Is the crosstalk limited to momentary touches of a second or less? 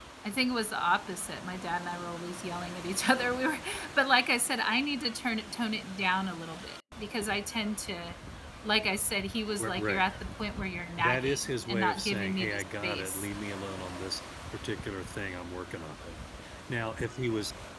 No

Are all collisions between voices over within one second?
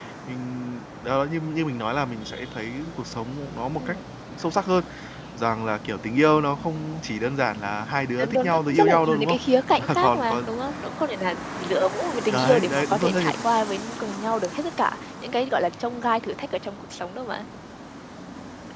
No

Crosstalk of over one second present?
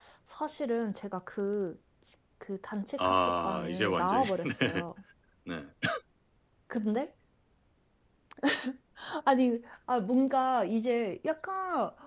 Yes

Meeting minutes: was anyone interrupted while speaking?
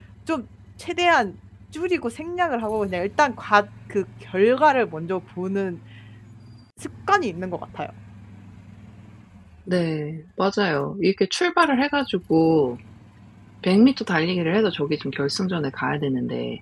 No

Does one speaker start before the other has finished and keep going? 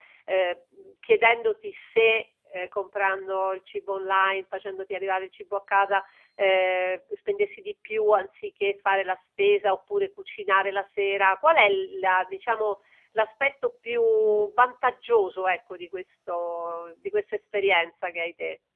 No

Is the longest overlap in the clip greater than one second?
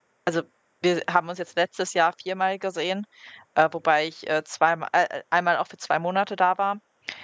No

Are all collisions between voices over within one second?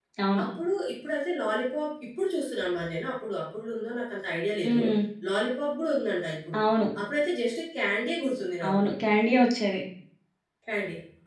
Yes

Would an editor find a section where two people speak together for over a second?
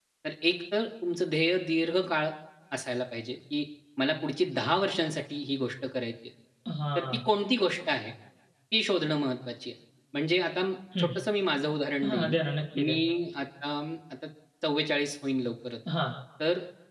No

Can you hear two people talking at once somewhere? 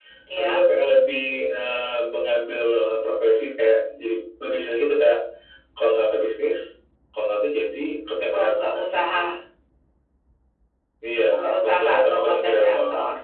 Yes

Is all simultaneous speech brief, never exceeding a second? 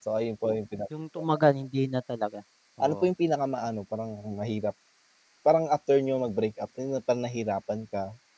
Yes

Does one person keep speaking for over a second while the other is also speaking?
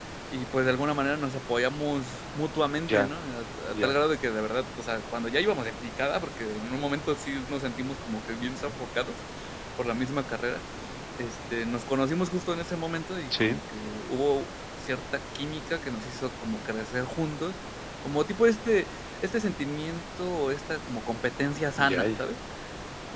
No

